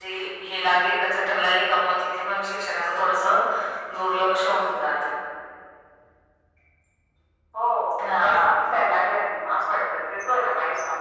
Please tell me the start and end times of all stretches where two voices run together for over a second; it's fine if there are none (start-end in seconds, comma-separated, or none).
none